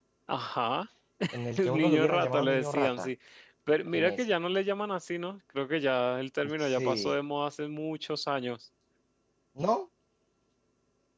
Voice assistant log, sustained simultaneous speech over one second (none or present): present